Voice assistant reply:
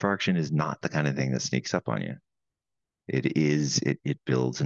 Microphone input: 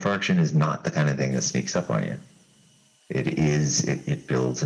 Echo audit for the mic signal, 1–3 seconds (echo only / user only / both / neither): echo only